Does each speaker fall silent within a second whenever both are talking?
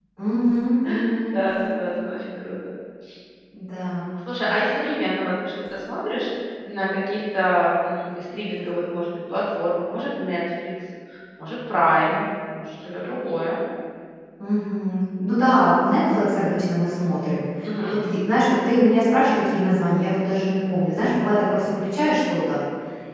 Yes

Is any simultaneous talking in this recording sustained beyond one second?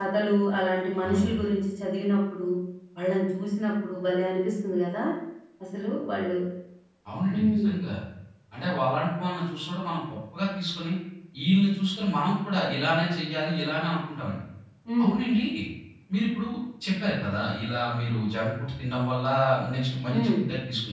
No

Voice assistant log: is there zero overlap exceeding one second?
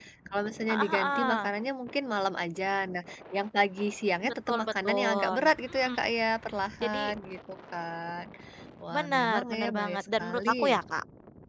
No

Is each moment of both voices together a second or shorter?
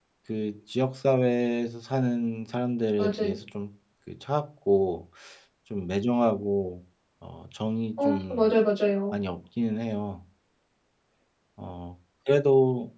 Yes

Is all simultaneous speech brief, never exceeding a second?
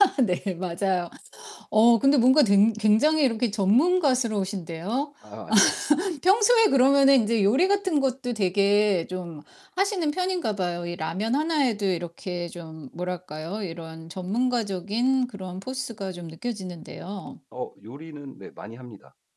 Yes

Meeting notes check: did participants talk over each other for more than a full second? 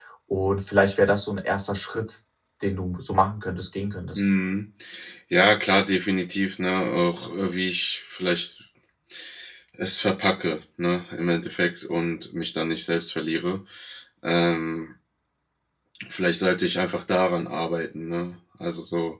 No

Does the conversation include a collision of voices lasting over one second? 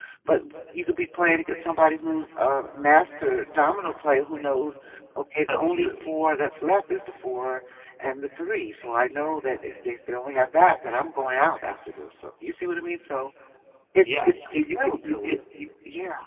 Yes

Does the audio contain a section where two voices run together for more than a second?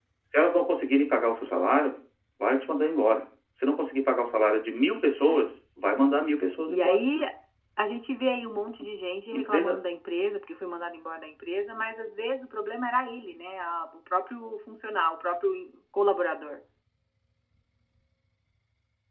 No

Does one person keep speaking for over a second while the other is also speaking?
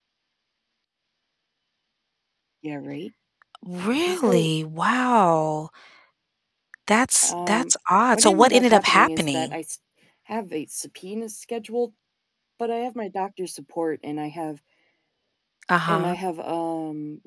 Yes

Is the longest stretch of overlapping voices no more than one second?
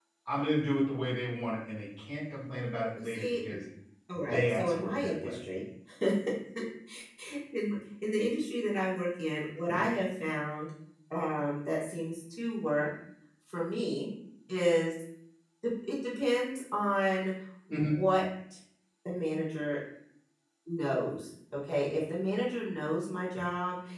No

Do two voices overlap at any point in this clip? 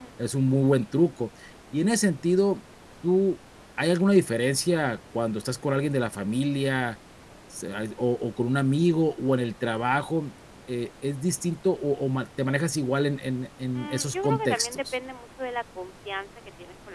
Yes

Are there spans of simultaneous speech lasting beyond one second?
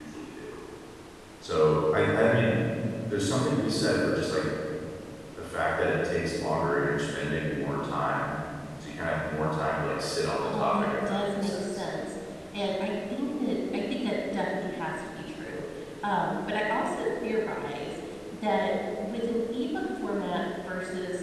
Yes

